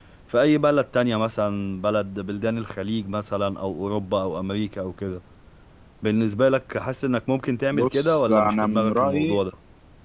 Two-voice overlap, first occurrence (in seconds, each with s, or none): 7.7 s